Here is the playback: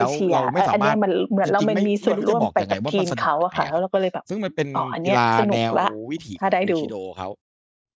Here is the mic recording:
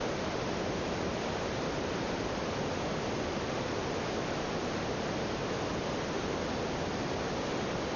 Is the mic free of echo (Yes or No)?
Yes